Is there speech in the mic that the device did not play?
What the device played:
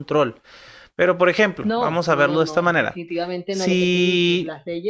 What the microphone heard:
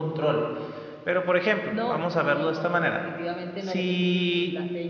No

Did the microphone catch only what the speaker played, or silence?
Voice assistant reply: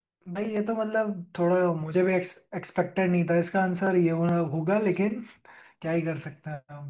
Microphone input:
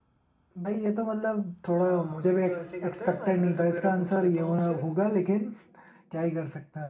No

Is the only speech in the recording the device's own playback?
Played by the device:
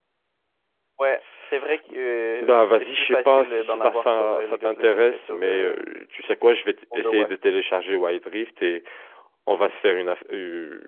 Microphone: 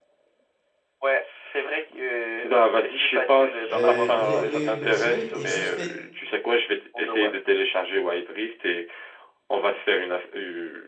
No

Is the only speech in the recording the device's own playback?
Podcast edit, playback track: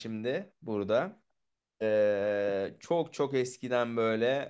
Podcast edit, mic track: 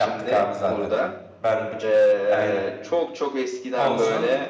No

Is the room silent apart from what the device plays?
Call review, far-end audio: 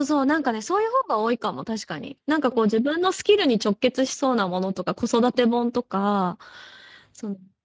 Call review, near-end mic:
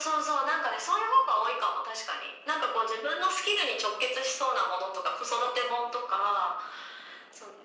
Yes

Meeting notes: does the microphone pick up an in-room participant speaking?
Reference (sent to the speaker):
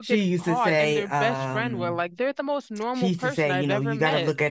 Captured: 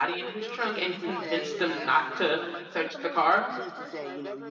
Yes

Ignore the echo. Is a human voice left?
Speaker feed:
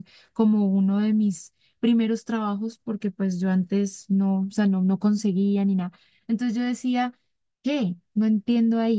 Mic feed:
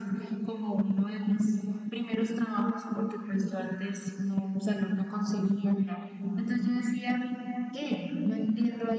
No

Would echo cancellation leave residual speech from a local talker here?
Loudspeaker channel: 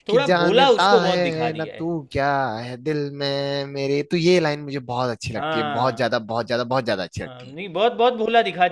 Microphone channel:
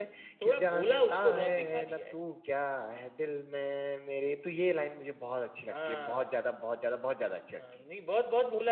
No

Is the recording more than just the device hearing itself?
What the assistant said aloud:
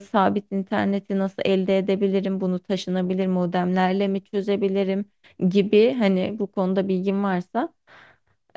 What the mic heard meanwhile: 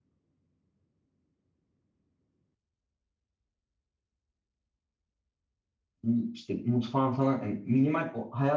Yes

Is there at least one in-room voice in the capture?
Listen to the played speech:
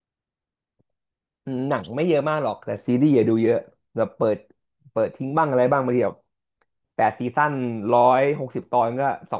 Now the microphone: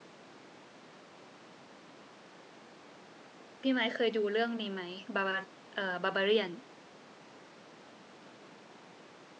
Yes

